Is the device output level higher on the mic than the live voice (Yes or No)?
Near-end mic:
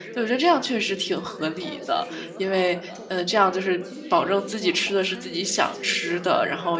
No